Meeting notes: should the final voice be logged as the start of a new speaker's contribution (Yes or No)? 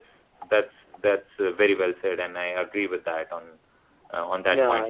Yes